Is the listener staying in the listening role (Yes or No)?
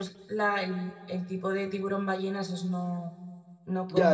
No